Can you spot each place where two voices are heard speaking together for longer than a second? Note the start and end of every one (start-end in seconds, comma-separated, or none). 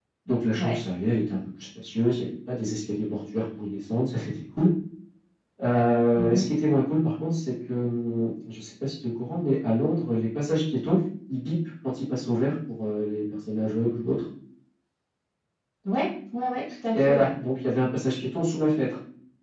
none